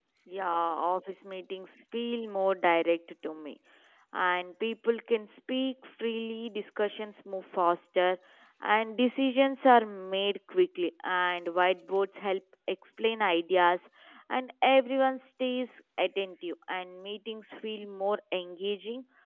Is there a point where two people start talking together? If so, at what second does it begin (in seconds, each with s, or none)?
none